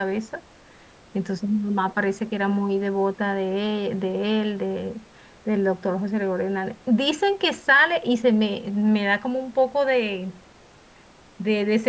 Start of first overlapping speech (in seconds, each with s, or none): none